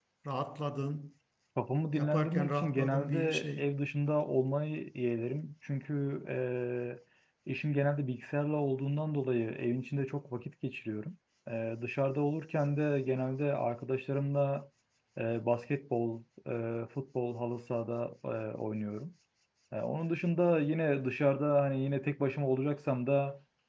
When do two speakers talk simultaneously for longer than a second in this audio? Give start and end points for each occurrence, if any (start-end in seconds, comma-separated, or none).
1.9-3.7